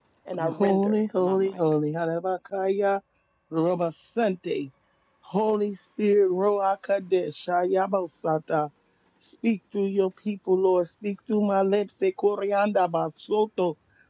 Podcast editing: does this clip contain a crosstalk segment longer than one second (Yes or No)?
Yes